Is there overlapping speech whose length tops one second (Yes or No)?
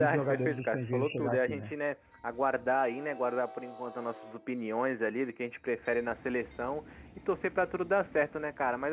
Yes